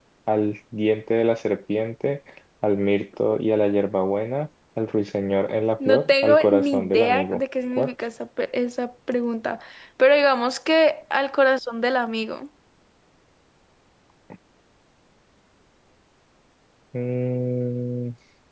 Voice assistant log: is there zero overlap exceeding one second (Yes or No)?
No